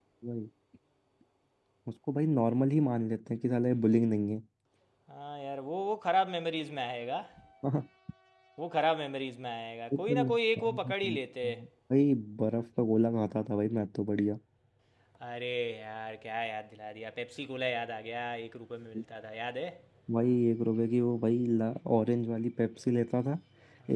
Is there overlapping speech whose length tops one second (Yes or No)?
Yes